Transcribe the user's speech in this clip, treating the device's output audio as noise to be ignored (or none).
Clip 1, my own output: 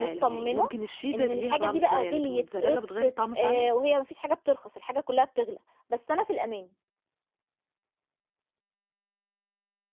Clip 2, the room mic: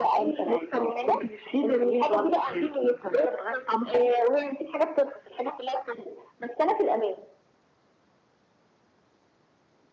none